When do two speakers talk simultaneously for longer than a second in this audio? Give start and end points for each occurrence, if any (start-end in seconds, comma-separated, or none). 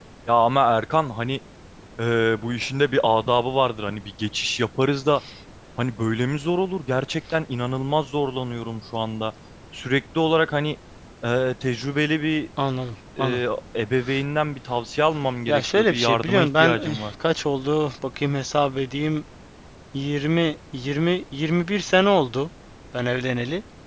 15.5-17.1